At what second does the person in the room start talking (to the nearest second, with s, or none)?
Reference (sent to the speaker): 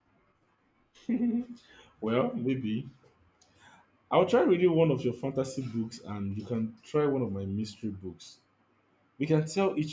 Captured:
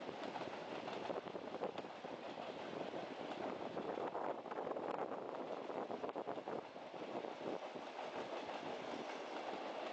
none